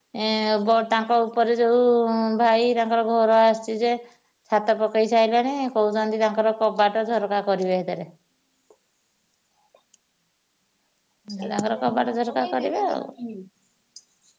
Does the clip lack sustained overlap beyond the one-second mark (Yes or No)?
No